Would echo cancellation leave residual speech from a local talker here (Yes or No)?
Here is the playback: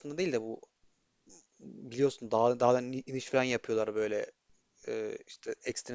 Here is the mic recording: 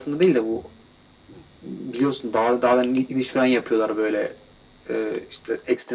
No